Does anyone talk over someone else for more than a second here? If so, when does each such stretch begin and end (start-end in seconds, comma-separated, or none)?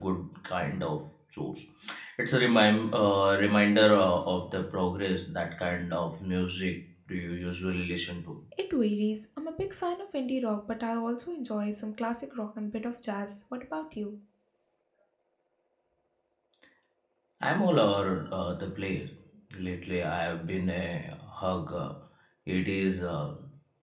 none